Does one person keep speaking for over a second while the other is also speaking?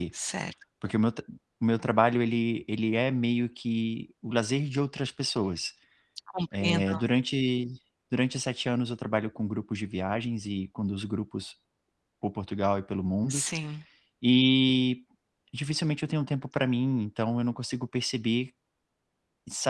No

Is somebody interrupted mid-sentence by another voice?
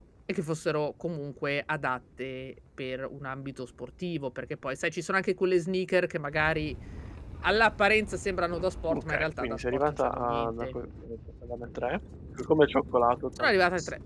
Yes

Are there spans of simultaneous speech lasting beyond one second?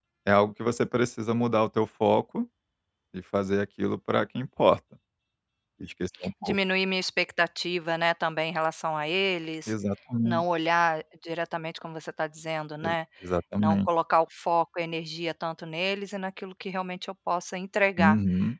No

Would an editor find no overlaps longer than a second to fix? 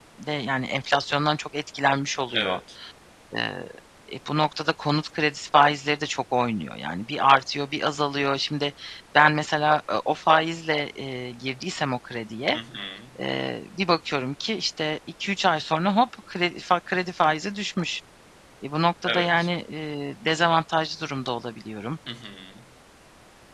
Yes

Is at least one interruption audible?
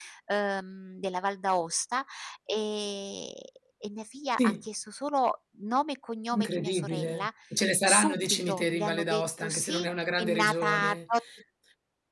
Yes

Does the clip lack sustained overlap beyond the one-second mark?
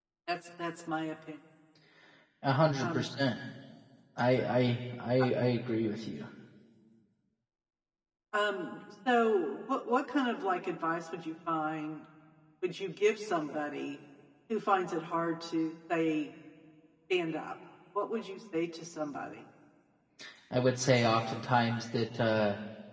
Yes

